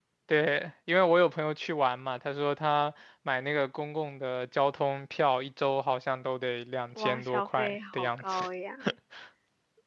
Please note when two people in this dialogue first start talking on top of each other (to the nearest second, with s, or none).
7 s